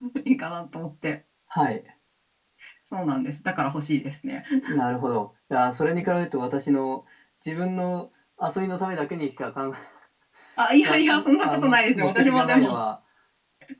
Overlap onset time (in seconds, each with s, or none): 10.8 s